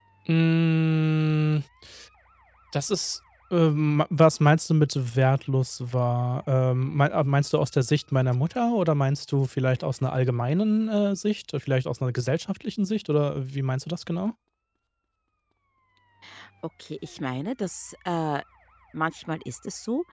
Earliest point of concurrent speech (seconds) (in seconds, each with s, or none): none